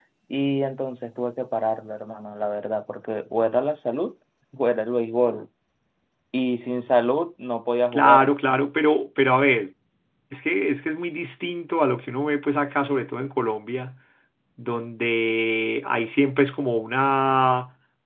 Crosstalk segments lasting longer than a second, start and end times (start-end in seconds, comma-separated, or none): none